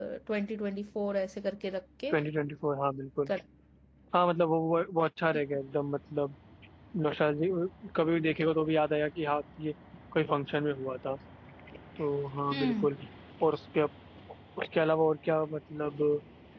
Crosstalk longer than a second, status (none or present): none